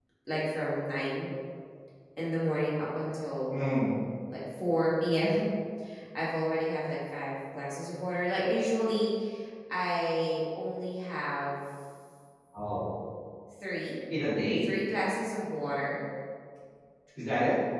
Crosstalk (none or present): none